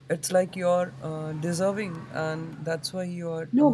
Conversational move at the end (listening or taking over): taking over